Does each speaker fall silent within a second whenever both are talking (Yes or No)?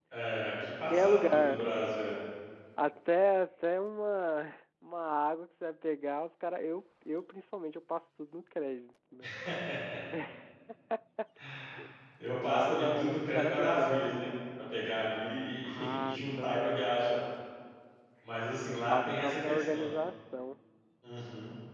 No